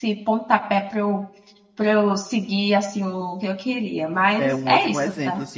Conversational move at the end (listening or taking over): taking over